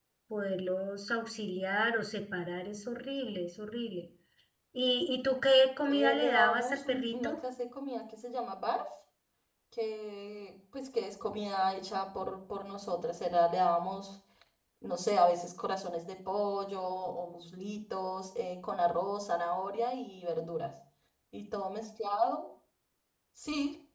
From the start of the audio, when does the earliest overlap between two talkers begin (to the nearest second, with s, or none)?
6 s